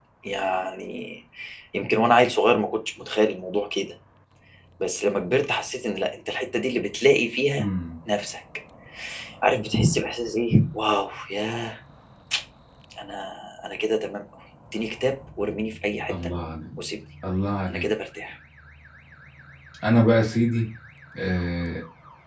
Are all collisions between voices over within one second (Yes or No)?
Yes